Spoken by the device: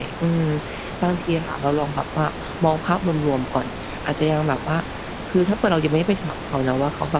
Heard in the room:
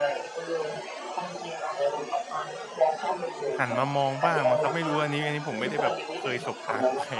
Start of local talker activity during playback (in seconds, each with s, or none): 3.6 s